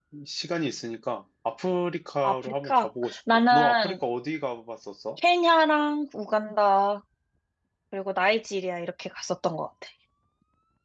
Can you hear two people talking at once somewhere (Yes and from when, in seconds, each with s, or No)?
Yes, from 2.2 s